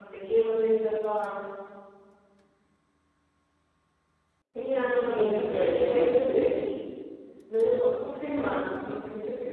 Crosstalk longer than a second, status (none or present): present